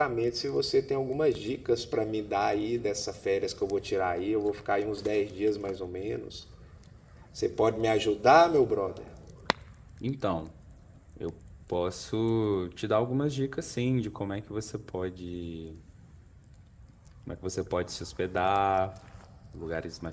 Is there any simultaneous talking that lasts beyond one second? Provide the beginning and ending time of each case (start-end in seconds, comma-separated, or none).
none